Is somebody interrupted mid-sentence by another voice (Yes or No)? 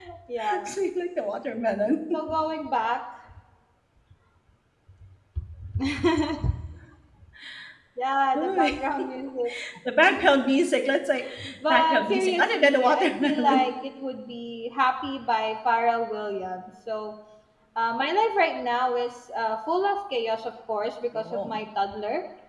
Yes